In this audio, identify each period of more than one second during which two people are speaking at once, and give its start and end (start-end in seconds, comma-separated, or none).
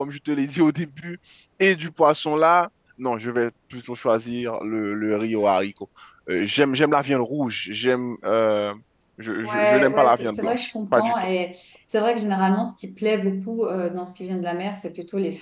9.4-11.1